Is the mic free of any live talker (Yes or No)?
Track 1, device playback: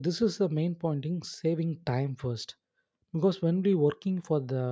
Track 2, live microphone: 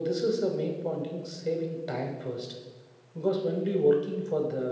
Yes